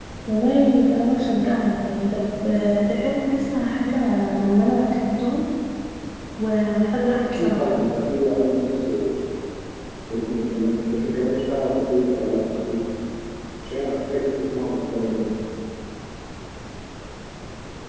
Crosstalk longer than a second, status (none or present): none